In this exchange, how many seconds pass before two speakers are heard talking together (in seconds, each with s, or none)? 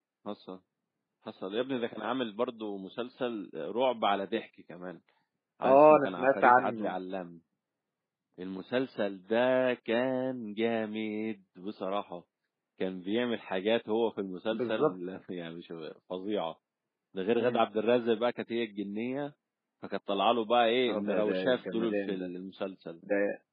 5.6 s